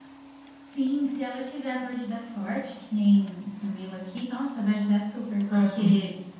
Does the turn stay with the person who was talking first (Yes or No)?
Yes